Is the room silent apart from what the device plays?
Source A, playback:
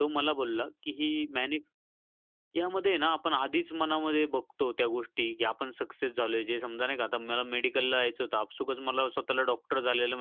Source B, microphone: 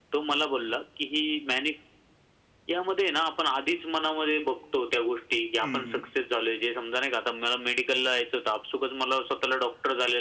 No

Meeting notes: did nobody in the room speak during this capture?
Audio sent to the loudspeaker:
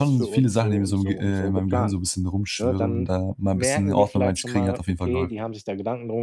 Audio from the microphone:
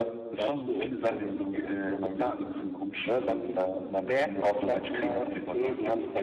Yes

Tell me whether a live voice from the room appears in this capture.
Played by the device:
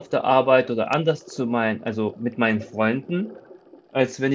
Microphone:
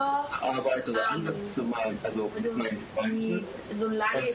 Yes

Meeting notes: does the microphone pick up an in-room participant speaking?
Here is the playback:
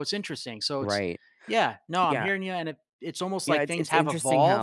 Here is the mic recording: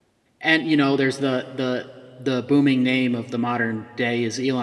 Yes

